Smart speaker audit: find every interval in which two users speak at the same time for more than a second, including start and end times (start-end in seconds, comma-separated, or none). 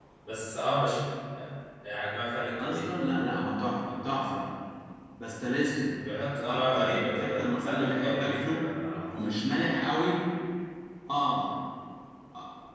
6.5-8.6